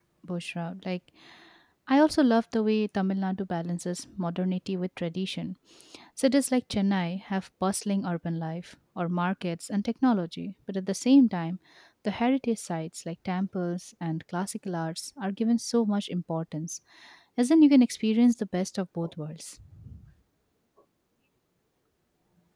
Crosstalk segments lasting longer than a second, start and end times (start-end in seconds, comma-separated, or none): none